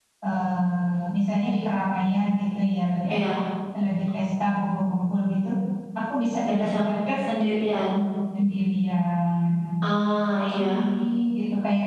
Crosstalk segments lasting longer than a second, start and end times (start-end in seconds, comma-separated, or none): none